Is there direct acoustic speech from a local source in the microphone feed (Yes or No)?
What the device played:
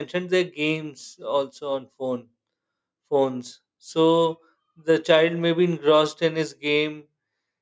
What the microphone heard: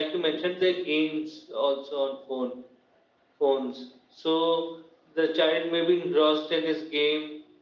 No